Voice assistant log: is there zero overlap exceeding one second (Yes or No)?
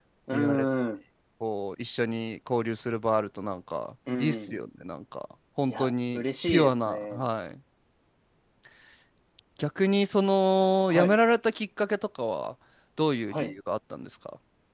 No